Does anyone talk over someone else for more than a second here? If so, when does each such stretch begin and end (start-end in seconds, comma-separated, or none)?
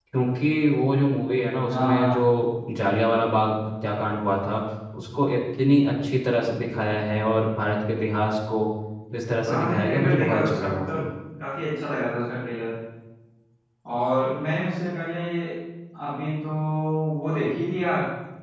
9.4-11.0